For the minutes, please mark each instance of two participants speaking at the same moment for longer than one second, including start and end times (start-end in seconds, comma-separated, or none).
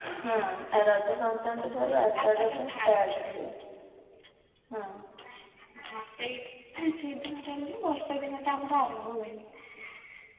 1.6-3.3